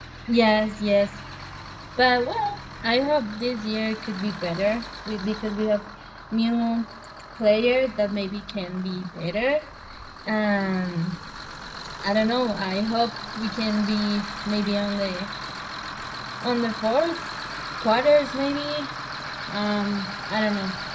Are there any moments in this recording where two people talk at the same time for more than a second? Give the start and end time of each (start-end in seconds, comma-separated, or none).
none